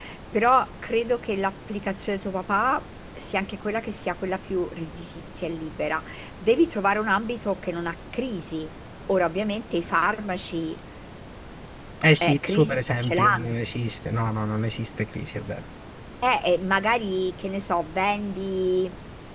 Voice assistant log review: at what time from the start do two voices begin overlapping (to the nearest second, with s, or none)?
12 s